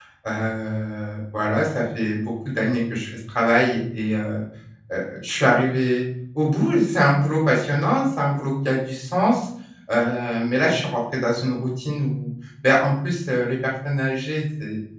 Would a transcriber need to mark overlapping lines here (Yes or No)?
No